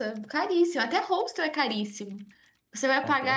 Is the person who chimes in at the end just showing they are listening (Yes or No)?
Yes